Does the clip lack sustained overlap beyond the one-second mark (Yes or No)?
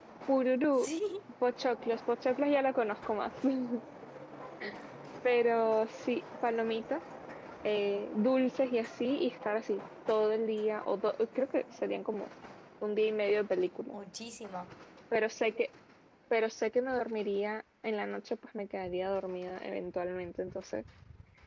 Yes